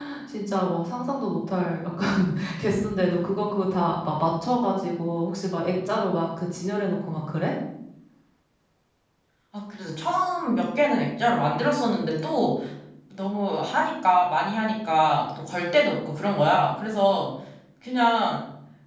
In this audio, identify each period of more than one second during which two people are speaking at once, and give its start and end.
none

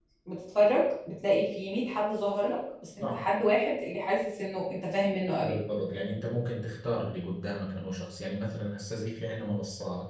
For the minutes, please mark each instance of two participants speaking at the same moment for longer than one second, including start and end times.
none

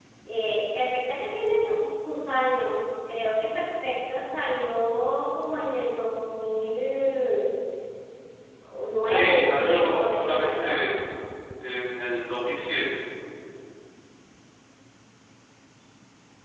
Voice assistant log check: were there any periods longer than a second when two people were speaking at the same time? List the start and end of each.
9.0-10.8

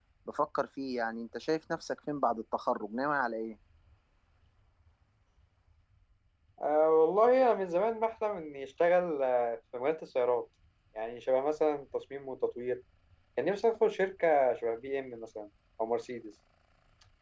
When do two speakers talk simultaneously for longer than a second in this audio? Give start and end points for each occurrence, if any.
none

